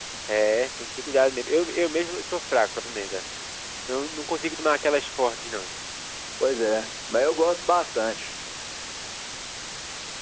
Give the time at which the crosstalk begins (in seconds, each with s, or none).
none